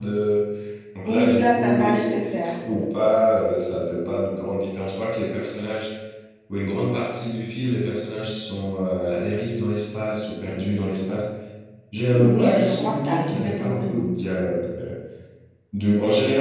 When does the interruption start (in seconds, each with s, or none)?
1.0 s